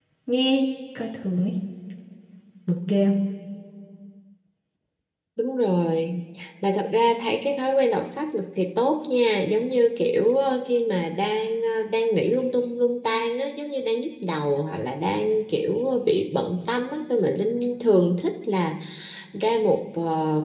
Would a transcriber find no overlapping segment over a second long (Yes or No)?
Yes